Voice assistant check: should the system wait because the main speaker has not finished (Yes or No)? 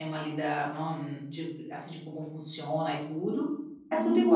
No